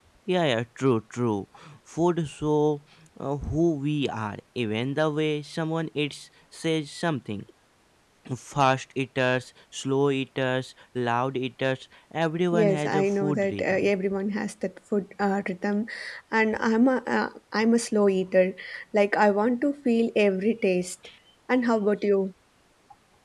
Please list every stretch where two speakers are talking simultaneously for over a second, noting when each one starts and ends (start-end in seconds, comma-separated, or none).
12.5-13.9